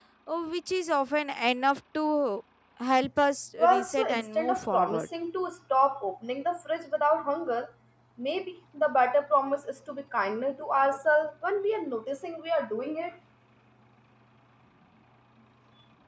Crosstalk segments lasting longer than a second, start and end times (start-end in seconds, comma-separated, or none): 3.6-5.1